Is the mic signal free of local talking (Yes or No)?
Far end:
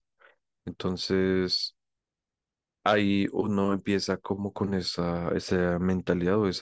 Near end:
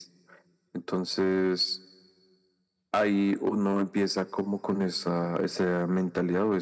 Yes